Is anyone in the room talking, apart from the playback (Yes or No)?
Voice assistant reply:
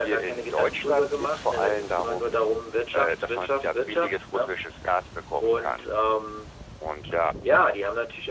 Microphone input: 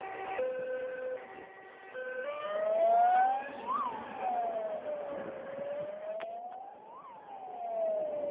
No